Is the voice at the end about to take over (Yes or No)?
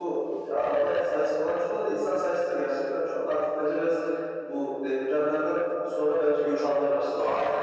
Yes